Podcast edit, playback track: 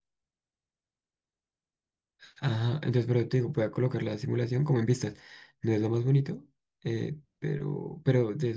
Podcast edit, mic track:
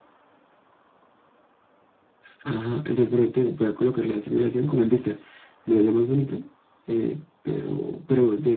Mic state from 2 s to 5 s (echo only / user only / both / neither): echo only